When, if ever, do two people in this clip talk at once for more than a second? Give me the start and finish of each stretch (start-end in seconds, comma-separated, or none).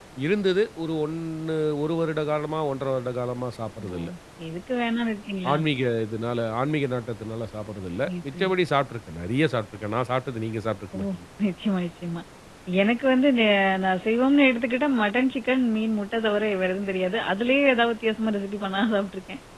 none